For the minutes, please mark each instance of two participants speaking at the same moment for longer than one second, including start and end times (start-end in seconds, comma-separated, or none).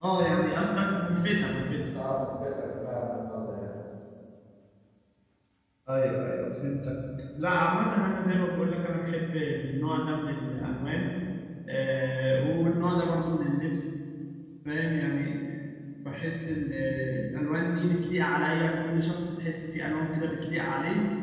none